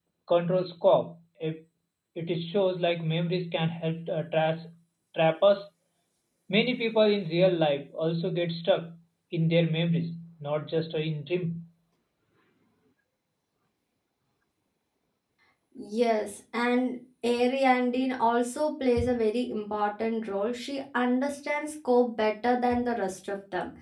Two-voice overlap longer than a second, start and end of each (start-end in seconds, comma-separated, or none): none